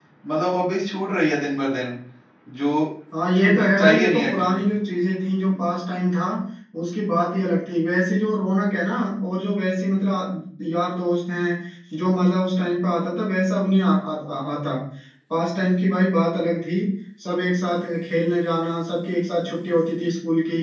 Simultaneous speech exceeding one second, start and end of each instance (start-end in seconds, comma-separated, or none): 3.3-4.6